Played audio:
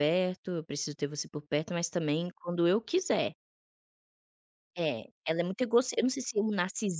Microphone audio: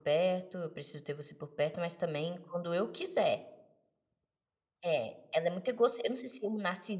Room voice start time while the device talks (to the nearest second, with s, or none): none